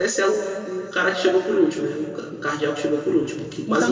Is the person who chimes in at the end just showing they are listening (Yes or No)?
No